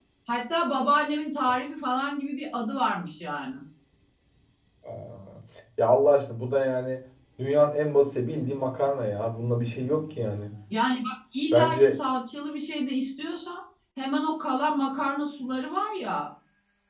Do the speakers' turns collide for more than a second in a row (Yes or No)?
No